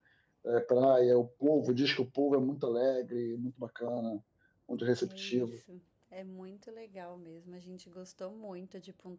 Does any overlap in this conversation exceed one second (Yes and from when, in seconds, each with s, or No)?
No